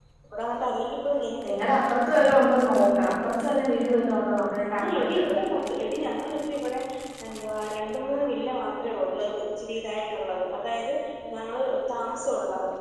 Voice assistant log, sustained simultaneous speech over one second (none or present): none